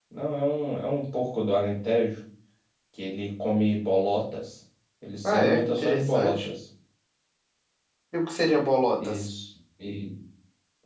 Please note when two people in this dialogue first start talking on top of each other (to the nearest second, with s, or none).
5 s